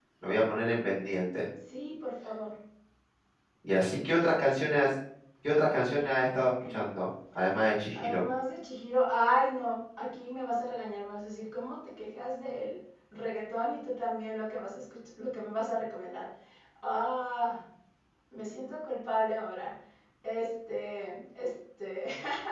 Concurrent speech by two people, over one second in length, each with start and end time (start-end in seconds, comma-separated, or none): none